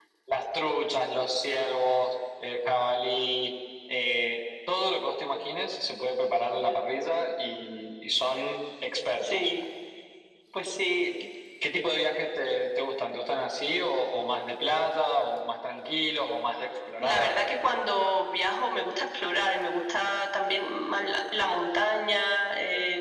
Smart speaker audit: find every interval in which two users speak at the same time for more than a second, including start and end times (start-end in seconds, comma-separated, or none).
none